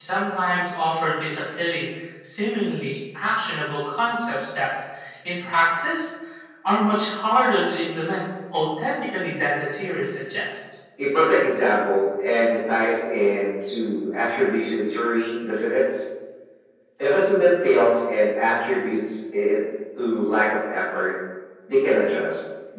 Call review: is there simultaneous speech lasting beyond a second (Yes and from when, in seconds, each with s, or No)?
No